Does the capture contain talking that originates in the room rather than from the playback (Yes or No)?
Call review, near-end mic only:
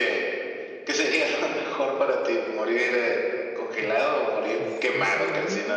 Yes